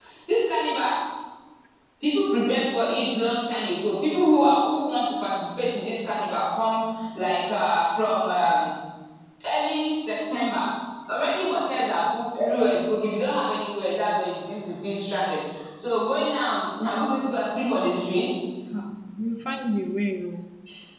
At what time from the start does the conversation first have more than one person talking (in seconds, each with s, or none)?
none